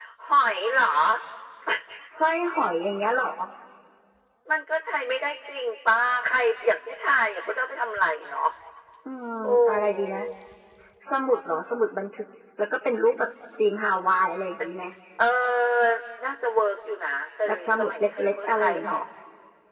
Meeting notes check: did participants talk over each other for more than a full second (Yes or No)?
Yes